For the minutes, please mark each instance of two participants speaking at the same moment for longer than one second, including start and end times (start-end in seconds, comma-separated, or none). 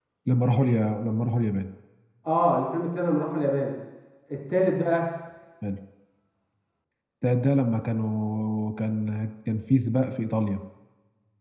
none